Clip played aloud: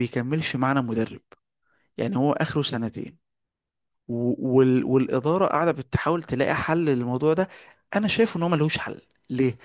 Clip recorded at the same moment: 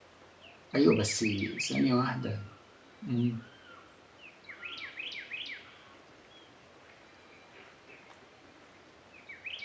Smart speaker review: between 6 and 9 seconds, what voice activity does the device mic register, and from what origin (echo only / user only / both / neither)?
neither